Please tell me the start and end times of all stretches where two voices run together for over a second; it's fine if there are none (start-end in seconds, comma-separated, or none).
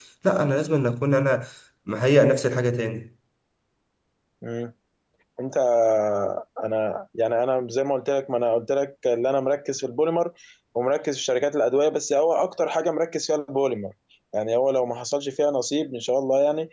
none